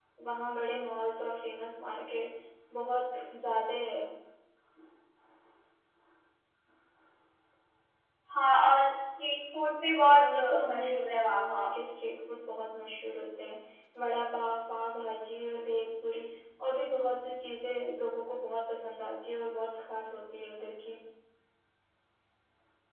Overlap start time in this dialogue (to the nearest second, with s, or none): 10 s